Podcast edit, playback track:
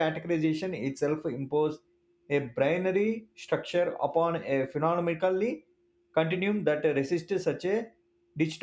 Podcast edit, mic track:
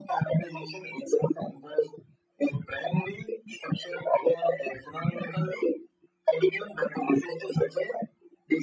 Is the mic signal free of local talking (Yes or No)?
Yes